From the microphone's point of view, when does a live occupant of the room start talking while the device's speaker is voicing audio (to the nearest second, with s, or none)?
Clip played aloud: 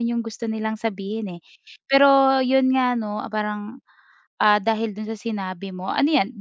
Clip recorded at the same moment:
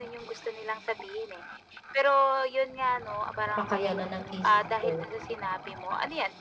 4 s